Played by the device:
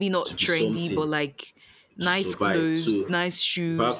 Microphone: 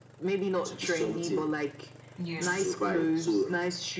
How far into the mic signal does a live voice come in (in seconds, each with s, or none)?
2.2 s